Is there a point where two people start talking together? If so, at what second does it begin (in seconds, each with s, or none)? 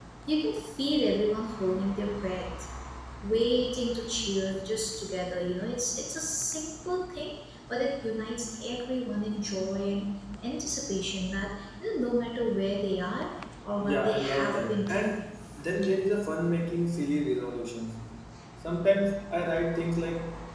13.8 s